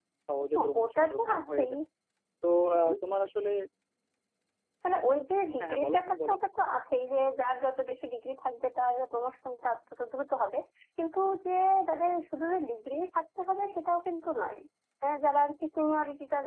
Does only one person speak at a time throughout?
No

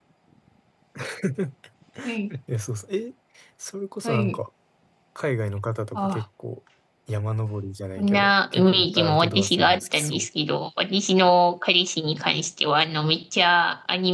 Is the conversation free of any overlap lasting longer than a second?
No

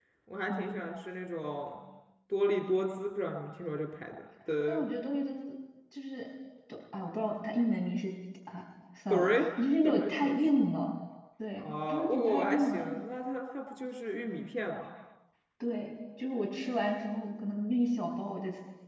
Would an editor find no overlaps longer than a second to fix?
No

